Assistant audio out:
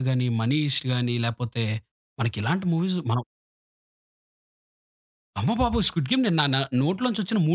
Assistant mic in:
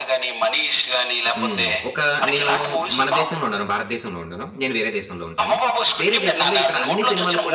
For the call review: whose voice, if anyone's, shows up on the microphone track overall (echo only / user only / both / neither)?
both